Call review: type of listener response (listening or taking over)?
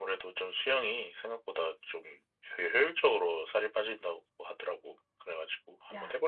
taking over